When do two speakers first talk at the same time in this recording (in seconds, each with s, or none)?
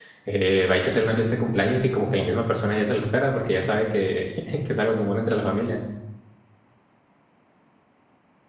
none